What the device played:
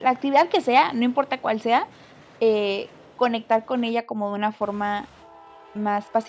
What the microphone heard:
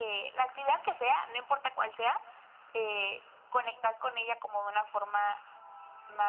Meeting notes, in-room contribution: none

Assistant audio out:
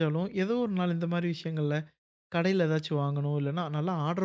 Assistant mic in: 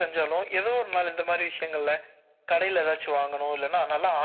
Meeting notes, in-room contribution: none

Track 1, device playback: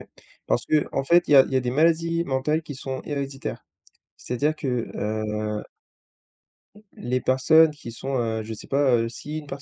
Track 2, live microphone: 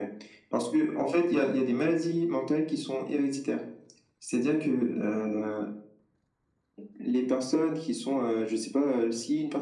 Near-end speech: none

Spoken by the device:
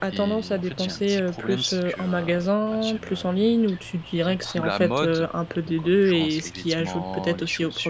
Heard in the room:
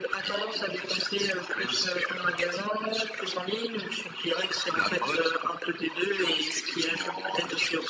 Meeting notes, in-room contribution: none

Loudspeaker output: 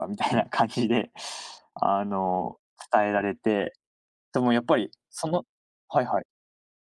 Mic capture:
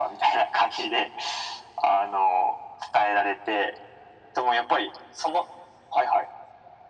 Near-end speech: none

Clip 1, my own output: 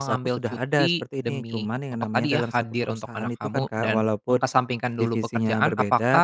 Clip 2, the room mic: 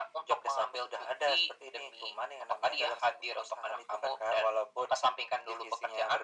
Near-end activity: none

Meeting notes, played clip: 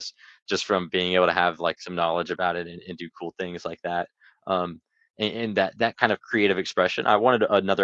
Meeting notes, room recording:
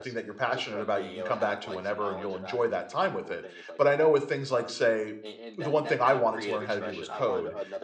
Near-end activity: present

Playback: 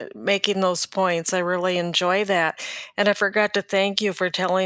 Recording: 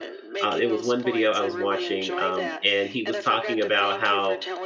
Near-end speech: present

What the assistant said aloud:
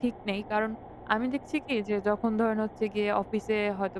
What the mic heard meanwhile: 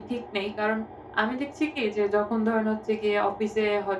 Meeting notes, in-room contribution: none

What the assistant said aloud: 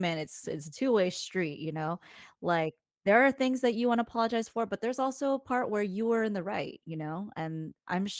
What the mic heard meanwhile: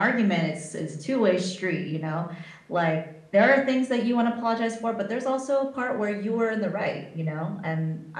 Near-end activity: none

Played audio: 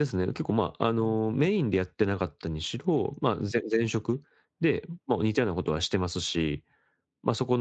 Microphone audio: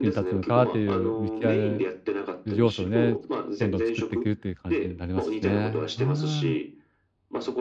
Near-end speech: present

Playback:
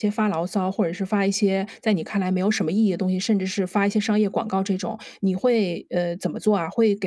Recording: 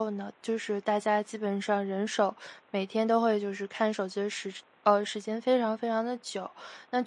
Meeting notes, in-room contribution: present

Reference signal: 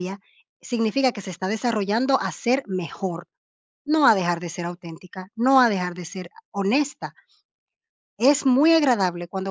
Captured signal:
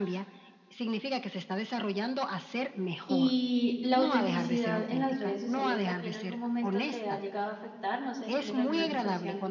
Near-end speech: present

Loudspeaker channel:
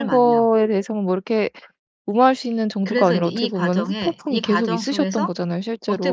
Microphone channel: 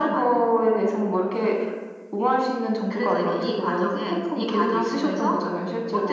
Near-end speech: none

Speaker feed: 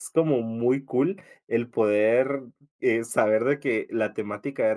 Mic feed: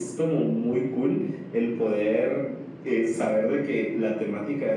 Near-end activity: none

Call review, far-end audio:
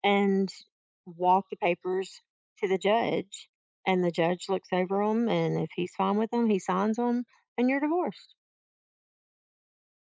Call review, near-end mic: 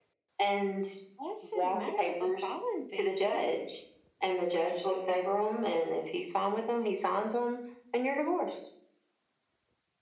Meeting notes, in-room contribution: present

